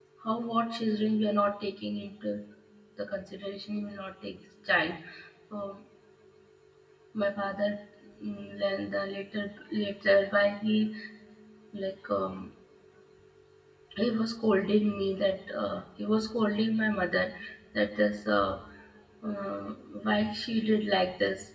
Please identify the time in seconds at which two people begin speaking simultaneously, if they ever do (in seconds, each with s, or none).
none